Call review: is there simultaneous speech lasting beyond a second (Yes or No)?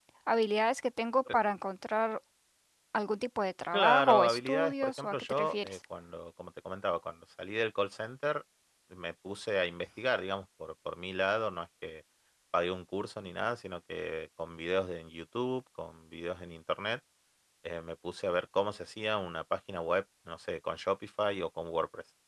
Yes